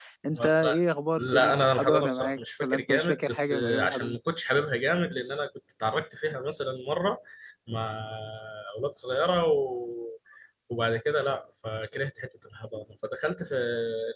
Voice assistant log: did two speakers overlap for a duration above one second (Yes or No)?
Yes